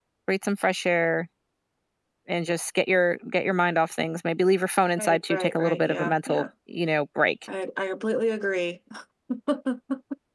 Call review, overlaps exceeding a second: present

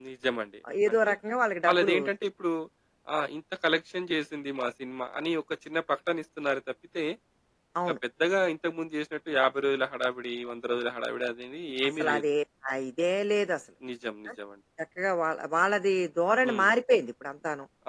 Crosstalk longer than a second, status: none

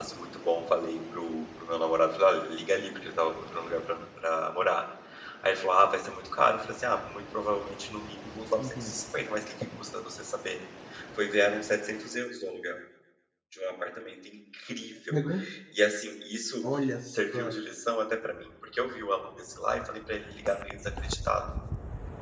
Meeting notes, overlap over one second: none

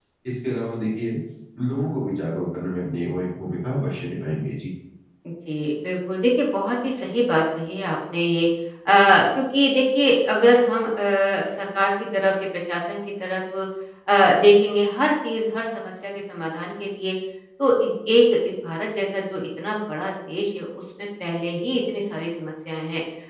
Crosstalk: none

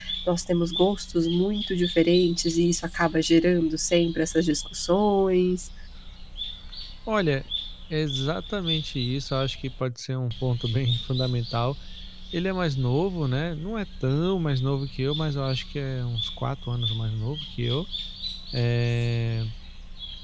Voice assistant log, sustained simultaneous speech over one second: none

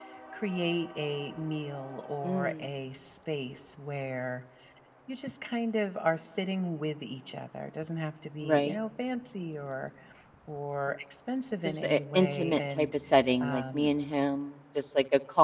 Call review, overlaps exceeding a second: present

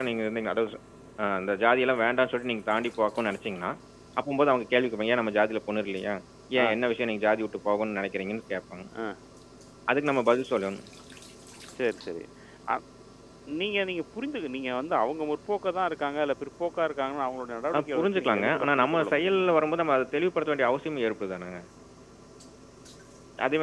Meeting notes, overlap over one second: present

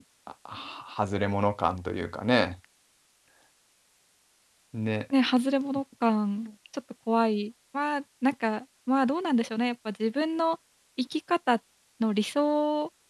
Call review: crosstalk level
none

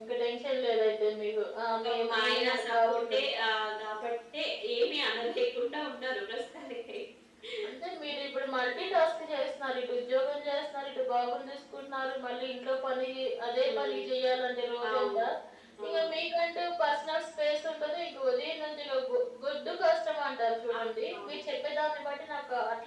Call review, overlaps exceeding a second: present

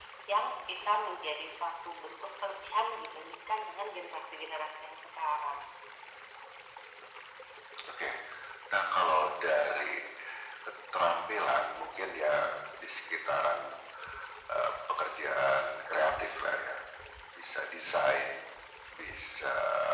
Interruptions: none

